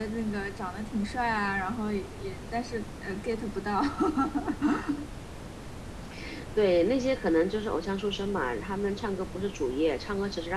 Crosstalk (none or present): none